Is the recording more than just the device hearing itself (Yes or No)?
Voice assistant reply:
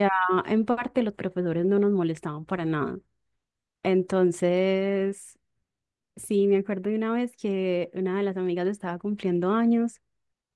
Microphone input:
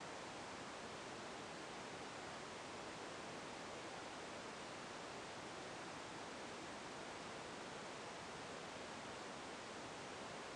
No